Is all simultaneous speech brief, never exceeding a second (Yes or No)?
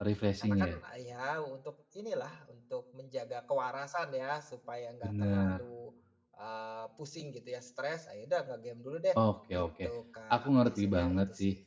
No